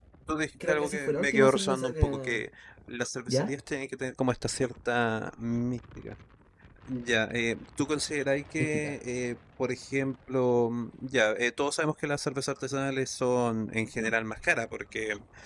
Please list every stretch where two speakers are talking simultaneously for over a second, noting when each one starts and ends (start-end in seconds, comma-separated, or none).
0.7-2.4